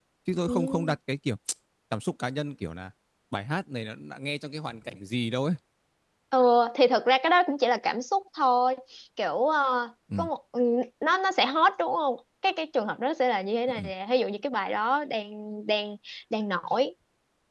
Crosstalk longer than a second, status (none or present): none